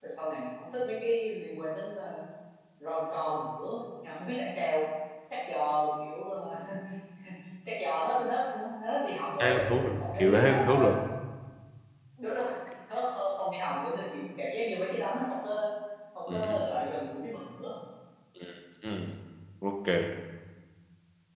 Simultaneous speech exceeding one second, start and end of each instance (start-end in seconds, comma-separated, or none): 9.4-10.9